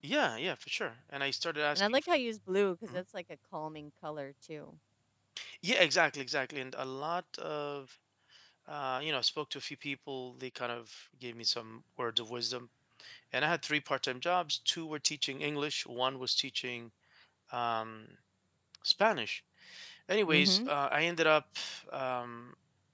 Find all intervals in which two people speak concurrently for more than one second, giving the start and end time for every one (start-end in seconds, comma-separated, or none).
none